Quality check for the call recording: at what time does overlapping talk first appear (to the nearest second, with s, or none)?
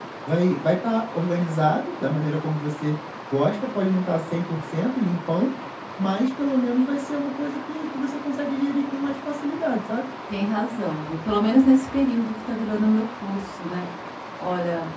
none